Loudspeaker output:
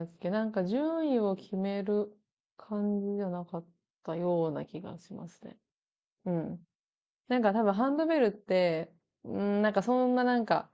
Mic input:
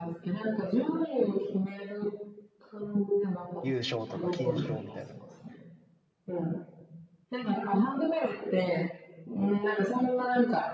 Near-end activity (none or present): present